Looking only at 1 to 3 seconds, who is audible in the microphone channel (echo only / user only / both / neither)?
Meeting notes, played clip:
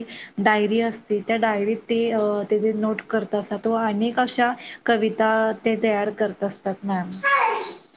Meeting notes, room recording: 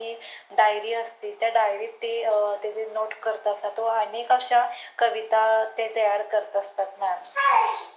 echo only